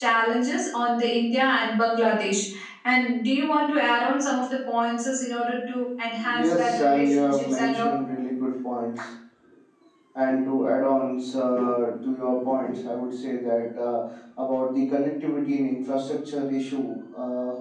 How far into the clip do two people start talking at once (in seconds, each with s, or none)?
6.2 s